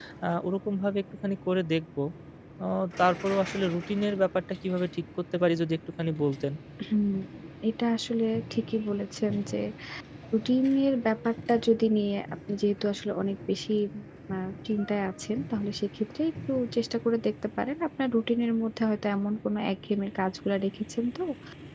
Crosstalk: none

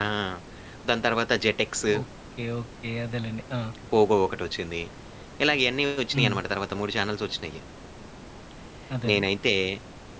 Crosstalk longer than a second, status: none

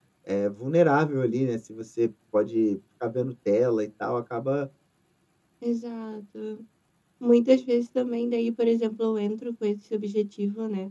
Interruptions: none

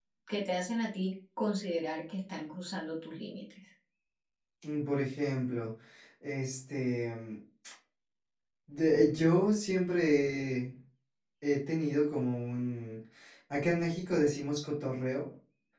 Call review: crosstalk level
none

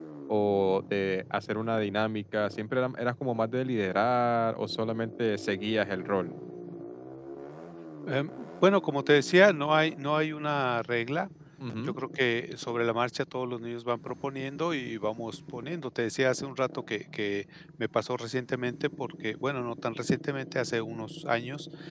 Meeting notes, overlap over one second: none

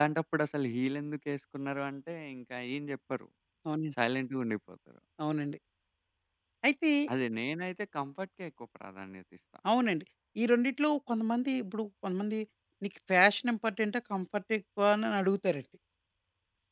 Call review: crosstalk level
none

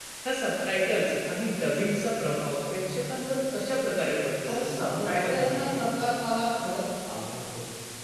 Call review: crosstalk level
present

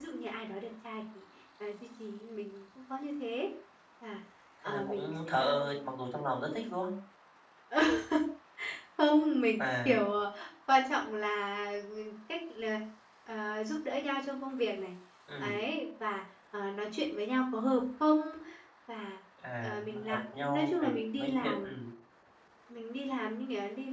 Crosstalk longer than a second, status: present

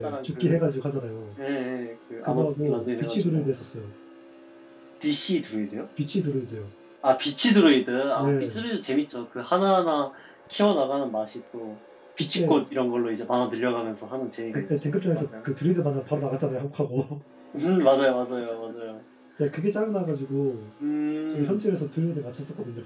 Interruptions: present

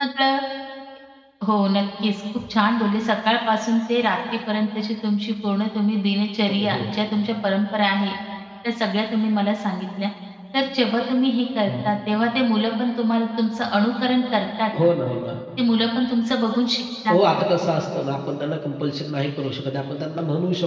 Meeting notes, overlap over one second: none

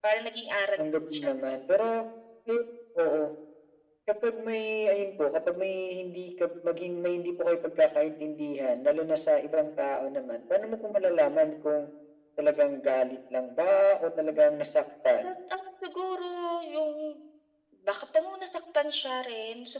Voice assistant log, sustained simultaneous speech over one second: none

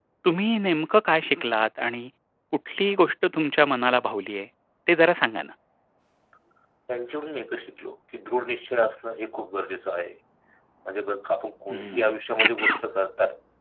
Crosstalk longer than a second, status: none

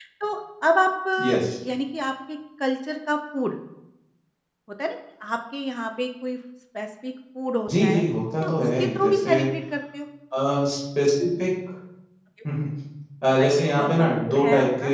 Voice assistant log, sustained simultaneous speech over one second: present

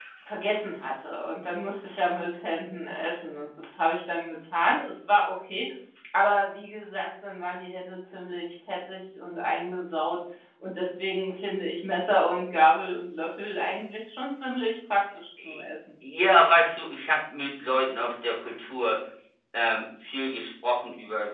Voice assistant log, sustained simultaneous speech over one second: none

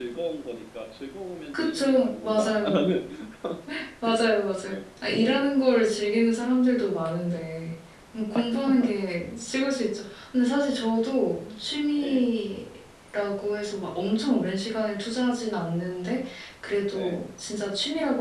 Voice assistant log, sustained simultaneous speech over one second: present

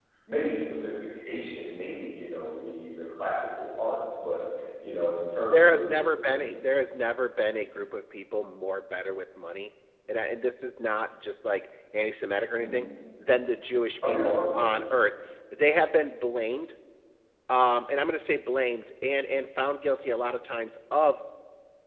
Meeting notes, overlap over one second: none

